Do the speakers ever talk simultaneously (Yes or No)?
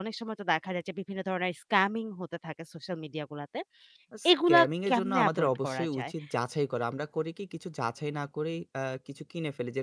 Yes